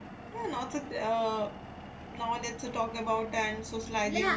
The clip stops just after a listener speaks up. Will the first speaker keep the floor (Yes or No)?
No